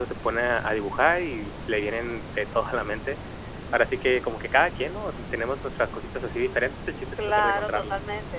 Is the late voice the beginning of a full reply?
Yes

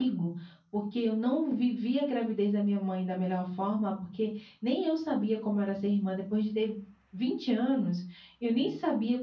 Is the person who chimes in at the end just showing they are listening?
Yes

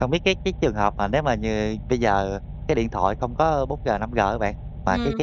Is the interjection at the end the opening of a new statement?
No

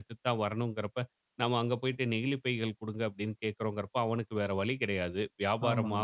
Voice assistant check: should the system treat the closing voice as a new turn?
No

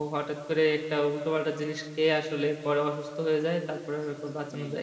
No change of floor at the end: No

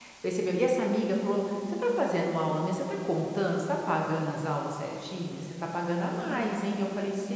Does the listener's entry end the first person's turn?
No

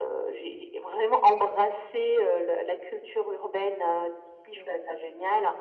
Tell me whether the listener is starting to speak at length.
No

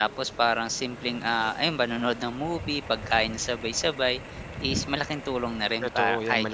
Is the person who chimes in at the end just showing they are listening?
No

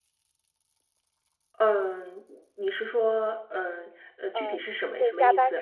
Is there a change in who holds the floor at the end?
Yes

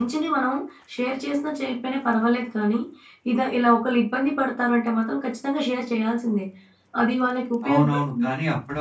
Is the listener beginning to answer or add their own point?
Yes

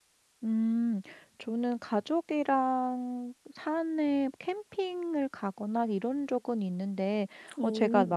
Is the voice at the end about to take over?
No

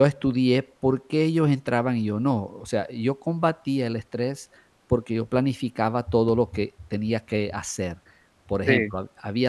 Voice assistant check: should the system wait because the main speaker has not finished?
Yes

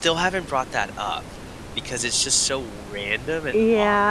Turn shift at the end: Yes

